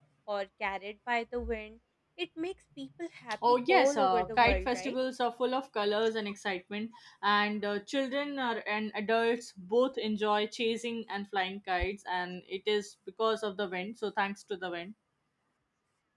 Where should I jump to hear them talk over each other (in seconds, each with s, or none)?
3.4 s